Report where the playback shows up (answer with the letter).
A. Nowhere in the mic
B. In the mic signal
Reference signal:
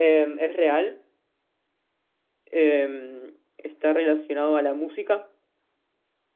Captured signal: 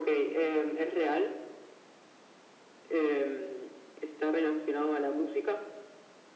B